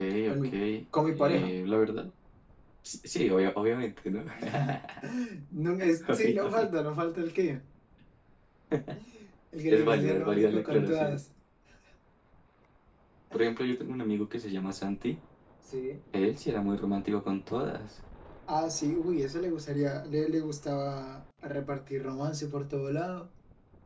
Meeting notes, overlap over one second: present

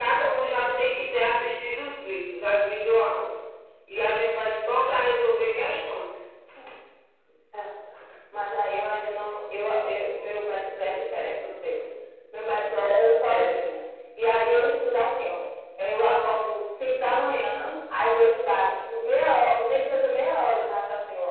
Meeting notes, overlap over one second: none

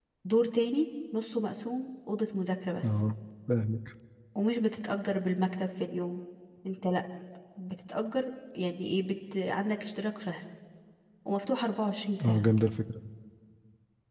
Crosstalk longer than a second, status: none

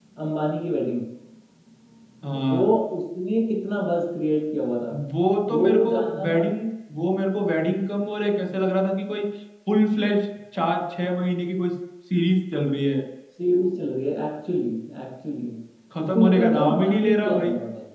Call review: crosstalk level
present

